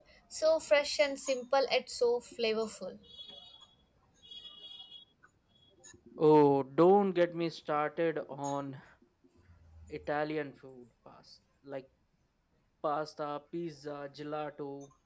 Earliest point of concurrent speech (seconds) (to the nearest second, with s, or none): none